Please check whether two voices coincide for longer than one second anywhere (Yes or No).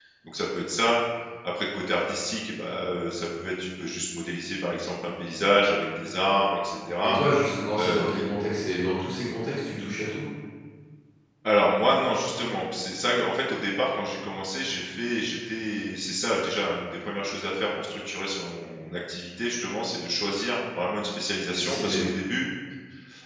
No